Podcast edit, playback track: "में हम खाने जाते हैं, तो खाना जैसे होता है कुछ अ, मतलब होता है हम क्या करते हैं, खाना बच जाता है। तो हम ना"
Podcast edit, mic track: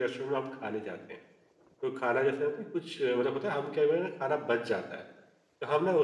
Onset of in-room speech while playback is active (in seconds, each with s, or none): none